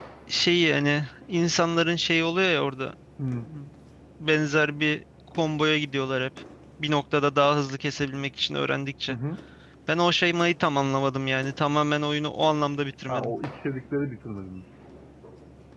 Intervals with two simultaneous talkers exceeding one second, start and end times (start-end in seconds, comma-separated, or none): none